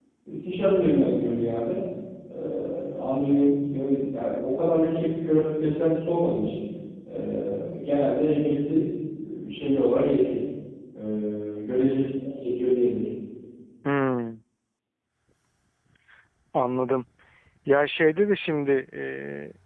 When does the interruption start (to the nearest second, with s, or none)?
none